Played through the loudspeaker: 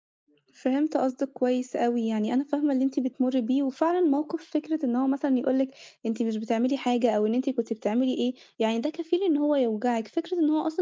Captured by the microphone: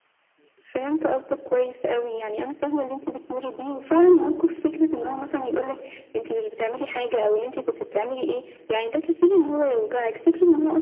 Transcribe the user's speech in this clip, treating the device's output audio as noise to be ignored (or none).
none